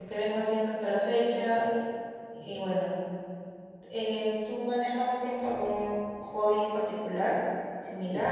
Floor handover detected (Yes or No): Yes